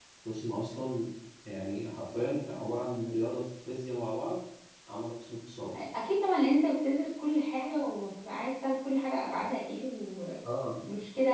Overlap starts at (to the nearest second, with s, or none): none